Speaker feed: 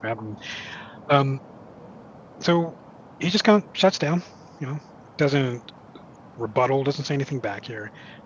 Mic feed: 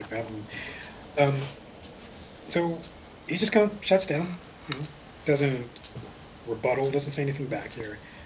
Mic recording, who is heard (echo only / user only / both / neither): echo only